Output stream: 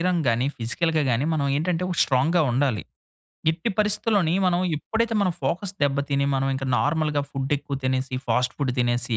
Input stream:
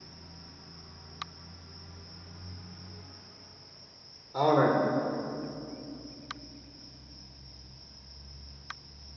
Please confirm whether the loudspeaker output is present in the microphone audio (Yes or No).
No